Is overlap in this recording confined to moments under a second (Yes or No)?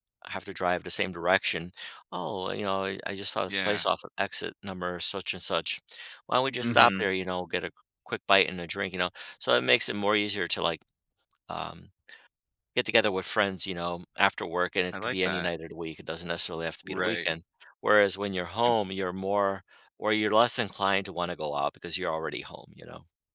Yes